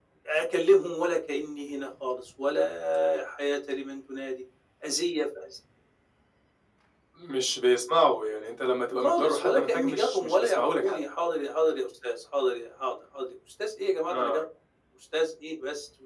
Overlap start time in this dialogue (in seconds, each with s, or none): 9.0 s